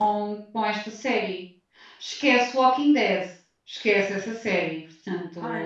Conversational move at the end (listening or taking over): taking over